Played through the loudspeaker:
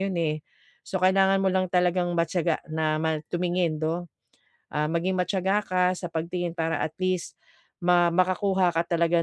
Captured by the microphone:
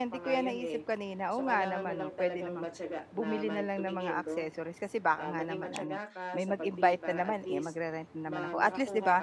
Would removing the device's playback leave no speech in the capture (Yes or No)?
No